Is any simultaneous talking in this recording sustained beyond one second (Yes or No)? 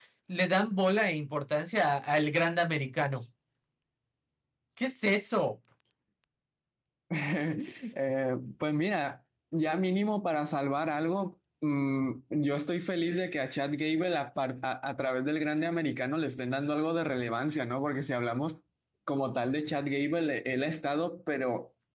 No